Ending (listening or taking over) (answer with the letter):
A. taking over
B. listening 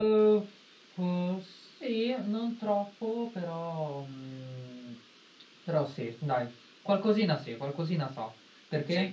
A